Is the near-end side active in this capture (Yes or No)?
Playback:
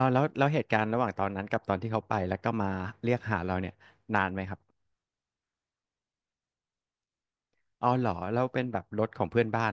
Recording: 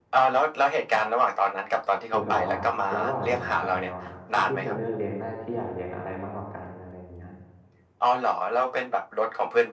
Yes